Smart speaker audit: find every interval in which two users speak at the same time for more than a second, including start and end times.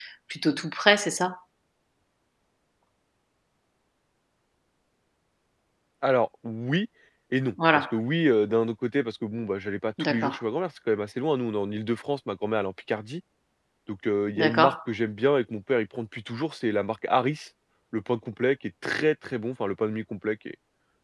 none

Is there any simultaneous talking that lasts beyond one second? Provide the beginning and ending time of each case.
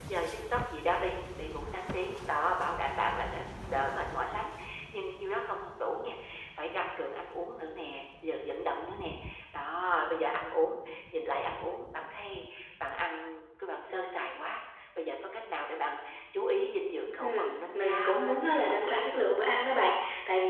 17.7-19.4

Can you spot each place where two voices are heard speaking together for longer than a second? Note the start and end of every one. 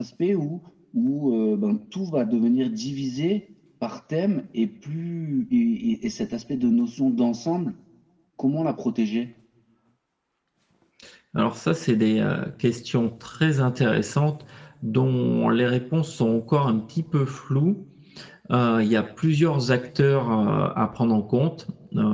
none

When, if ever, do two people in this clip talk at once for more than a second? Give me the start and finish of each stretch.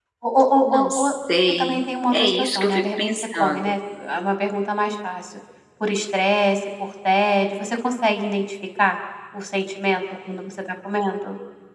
1.6-3.6

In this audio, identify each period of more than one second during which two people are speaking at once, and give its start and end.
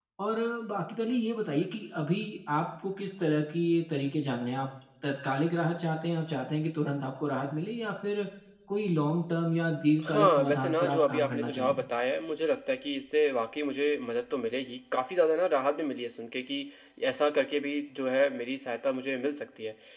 10.0-11.8

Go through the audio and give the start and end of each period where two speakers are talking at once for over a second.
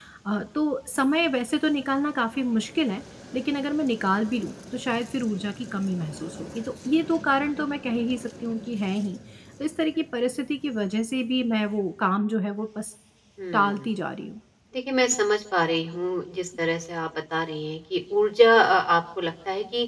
none

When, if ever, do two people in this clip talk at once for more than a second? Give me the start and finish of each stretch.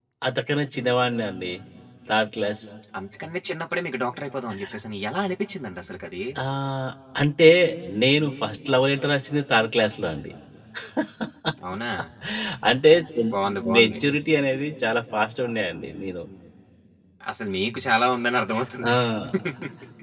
none

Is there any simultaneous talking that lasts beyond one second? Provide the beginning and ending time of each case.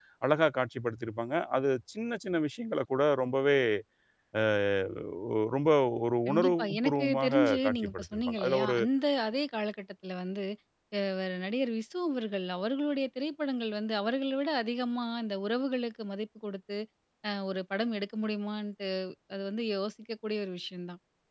6.3-8.8

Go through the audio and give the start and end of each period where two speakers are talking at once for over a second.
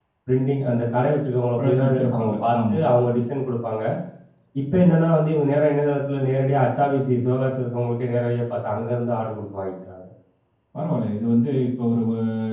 1.6-2.8

